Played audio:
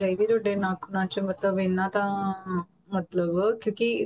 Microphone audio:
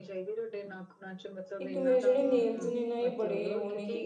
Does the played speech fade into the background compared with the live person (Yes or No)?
Yes